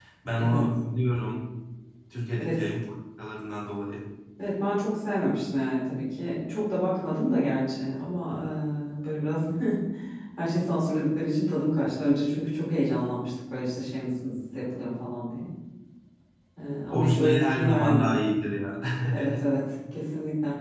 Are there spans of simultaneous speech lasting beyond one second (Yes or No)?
Yes